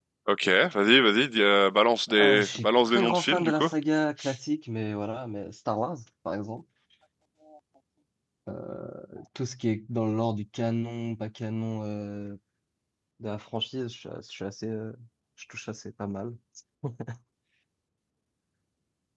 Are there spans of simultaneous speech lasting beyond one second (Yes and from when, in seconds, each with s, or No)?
Yes, from 2.1 s